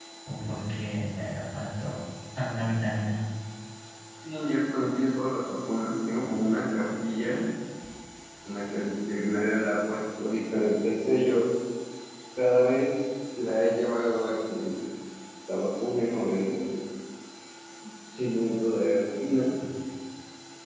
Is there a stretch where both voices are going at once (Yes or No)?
No